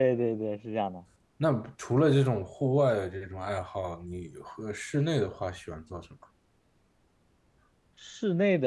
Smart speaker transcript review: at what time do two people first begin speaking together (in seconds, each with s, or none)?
none